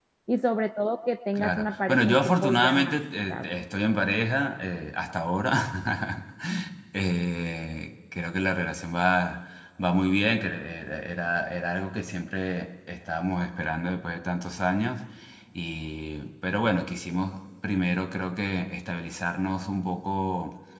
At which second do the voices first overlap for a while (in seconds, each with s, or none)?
1.4 s